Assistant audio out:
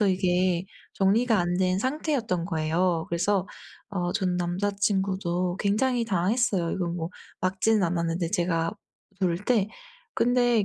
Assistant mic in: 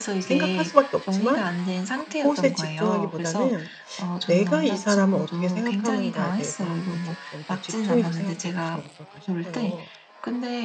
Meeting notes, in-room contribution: present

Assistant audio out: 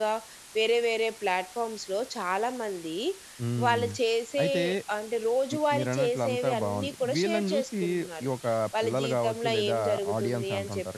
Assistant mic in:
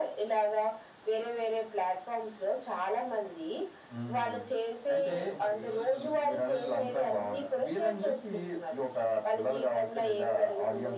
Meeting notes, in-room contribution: present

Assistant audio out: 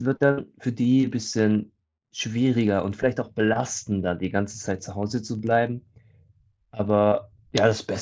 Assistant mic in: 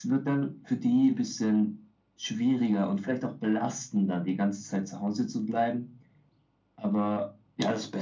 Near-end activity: none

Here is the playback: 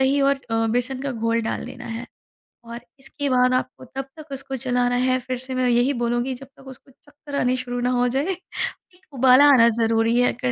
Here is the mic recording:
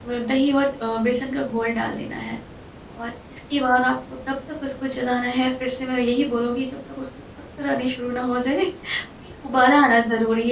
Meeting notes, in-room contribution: none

